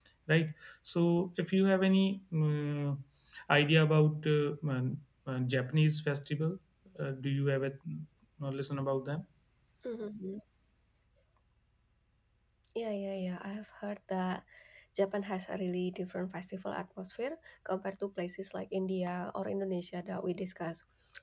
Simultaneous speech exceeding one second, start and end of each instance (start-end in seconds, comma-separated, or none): none